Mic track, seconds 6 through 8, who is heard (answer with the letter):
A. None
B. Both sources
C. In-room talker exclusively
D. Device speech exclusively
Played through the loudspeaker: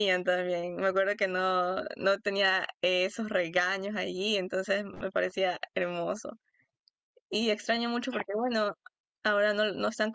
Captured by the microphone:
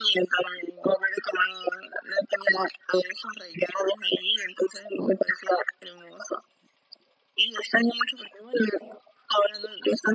D